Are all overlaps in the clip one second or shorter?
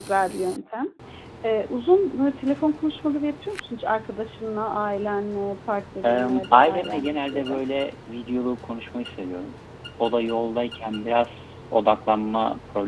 No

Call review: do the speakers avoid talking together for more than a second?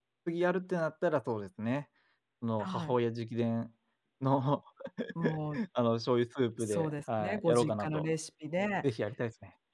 No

